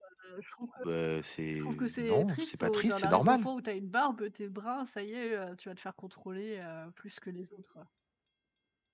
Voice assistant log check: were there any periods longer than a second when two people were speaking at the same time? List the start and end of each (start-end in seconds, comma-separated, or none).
1.6-3.5